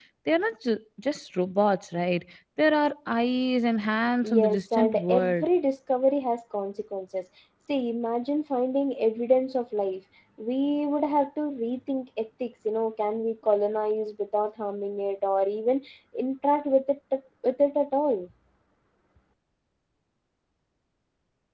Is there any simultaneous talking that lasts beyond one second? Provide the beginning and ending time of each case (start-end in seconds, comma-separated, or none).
4.2-5.5